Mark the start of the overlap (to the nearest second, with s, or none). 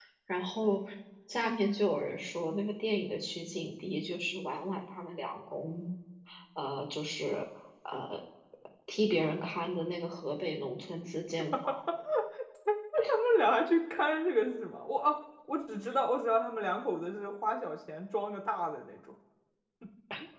none